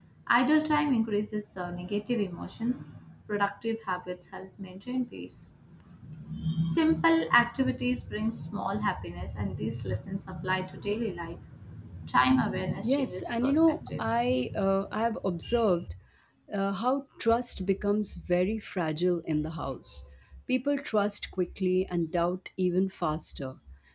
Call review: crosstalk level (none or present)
present